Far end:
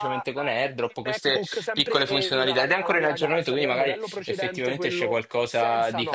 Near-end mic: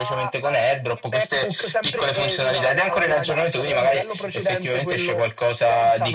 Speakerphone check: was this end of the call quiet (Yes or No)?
Yes